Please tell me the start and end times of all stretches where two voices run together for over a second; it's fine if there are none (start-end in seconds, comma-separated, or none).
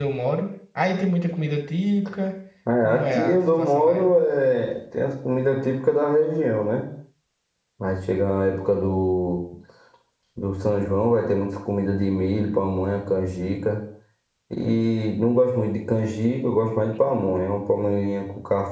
2.8-4.1